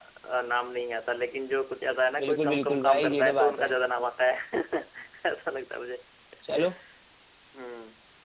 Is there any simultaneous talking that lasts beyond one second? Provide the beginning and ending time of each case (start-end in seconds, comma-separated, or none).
2.2-3.7